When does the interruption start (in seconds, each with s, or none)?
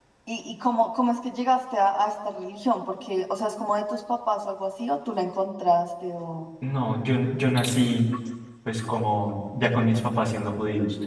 none